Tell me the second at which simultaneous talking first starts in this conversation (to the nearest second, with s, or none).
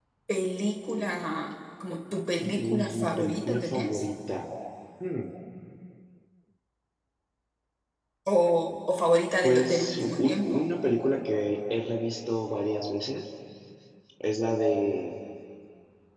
2 s